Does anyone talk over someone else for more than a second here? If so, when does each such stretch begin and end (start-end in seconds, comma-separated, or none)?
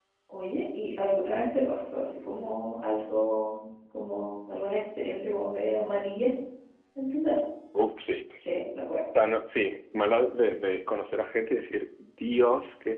none